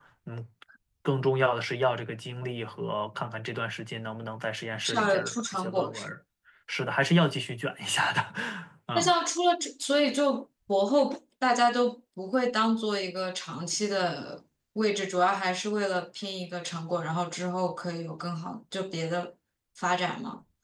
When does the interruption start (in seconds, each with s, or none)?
4.8 s